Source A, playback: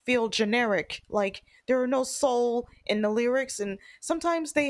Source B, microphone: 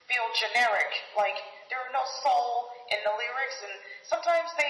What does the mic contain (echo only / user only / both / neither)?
echo only